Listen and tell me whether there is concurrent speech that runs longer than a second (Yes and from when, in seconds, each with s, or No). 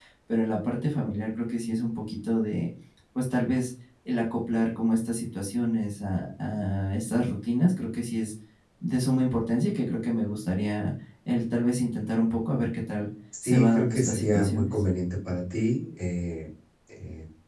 Yes, from 13.3 s